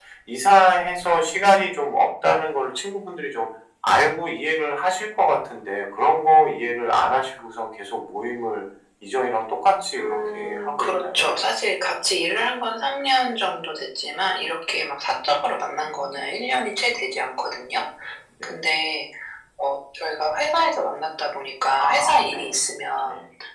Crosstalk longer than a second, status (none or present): present